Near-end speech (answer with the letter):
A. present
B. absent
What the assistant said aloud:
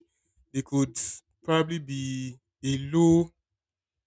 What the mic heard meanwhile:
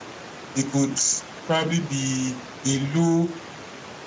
B